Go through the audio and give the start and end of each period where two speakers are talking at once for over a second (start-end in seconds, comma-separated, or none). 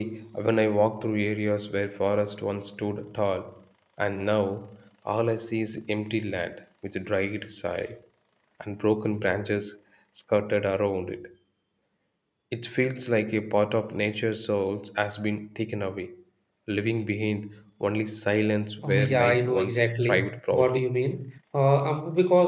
18.8-20.8